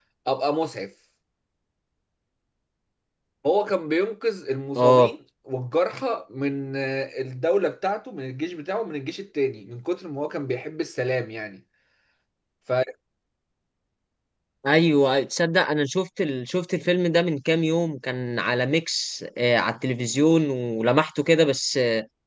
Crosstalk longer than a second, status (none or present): none